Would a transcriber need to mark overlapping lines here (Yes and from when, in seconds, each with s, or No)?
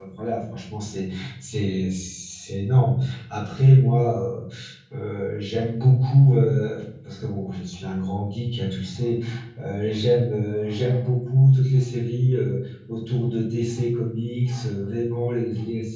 No